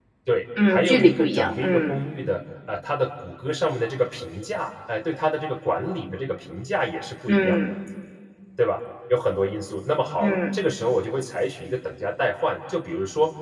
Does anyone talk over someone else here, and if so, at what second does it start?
1 s

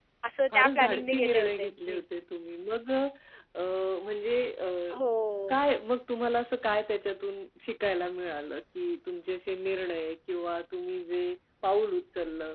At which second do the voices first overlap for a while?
1 s

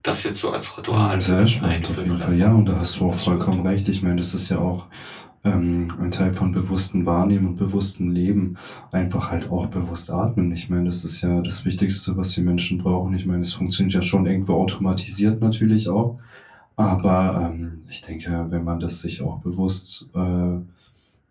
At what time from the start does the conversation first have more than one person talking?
1 s

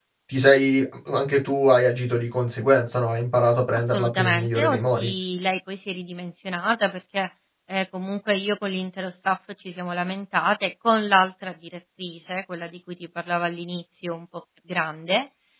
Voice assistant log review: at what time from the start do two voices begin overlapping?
4 s

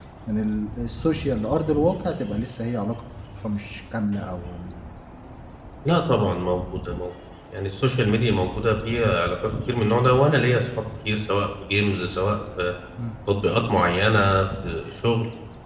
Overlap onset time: none

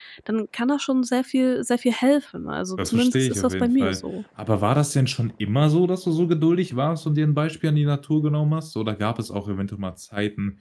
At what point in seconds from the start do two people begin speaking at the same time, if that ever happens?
3 s

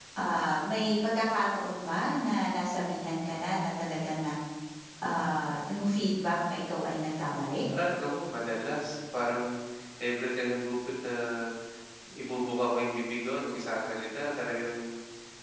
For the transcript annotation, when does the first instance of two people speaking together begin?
none

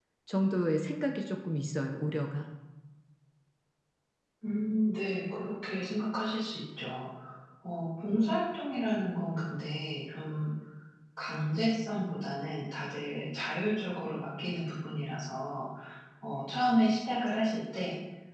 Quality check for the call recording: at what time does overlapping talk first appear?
none

